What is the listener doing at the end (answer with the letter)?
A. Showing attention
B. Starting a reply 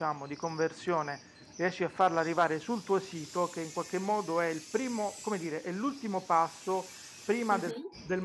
A